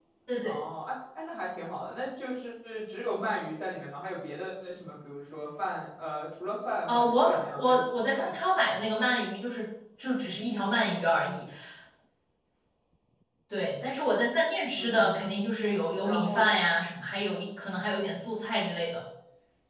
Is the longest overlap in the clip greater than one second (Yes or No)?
Yes